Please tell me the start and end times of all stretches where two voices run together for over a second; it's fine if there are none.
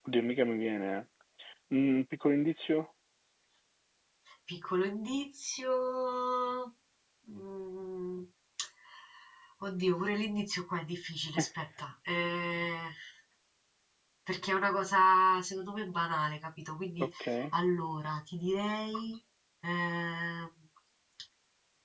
none

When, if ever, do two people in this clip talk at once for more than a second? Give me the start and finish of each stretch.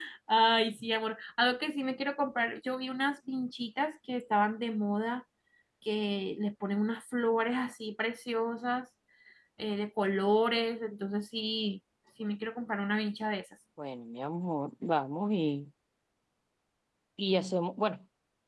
none

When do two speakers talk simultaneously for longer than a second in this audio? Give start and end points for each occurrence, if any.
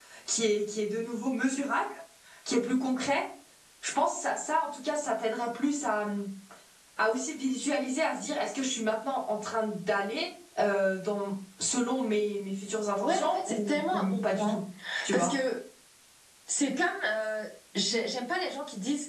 13.0-14.6

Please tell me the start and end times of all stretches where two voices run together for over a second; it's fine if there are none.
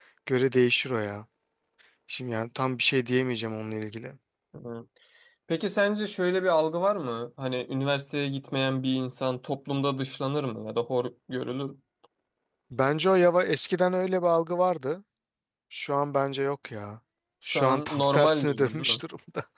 17.5-19.0

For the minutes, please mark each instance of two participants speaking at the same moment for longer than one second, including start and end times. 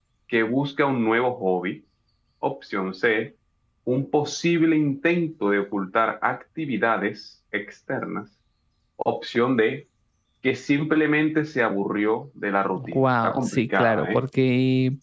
12.8-14.2

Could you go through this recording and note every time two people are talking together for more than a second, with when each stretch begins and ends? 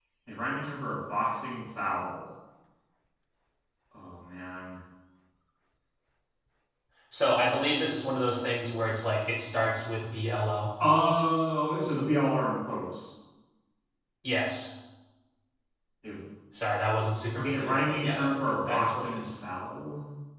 17.4-19.2

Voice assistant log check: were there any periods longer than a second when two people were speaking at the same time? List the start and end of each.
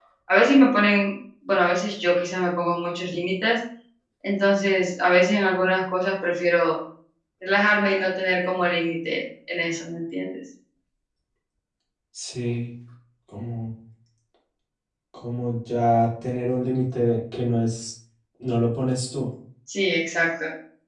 none

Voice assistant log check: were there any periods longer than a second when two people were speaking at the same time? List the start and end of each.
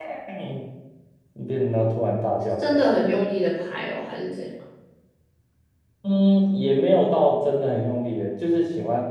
none

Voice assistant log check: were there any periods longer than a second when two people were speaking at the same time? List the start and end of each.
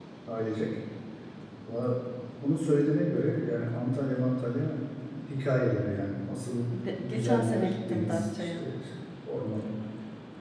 7.0-8.6

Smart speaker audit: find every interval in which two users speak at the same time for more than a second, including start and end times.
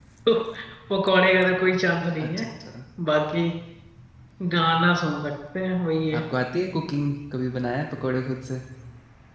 none

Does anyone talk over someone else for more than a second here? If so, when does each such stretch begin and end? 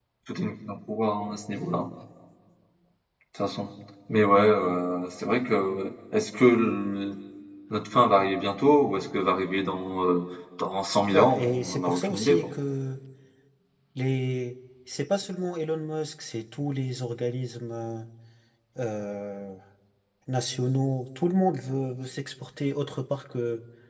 11.1-12.5

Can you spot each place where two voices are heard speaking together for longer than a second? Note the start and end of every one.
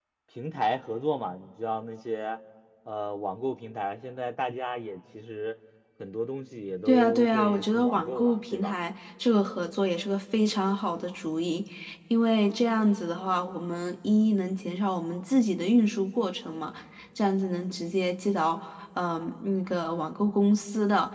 6.9-8.8

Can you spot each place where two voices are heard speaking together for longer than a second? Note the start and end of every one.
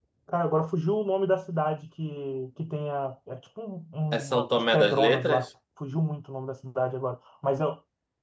4.1-5.5

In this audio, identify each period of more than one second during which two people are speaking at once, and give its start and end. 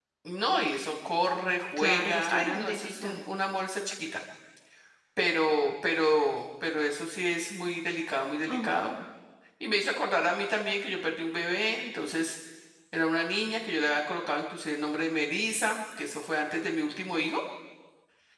1.8-3.2

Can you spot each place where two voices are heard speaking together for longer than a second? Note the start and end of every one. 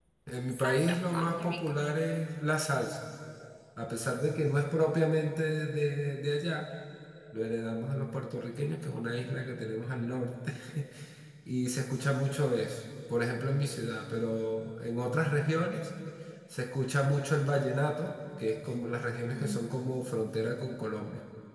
0.5-1.7

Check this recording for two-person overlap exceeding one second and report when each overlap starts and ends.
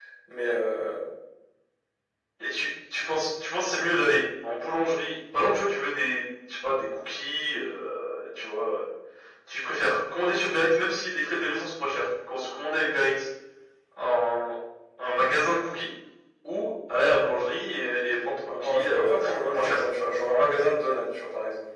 18.5-19.8

